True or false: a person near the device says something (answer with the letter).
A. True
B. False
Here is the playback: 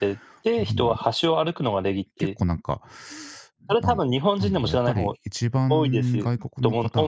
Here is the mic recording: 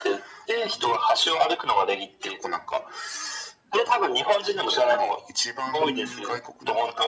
B